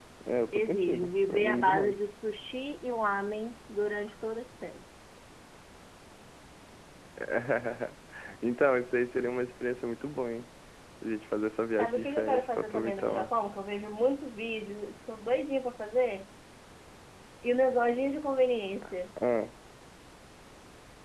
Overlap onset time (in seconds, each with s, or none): 0.5 s